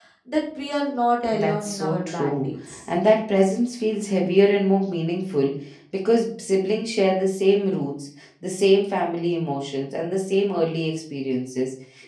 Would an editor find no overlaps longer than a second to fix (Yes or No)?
No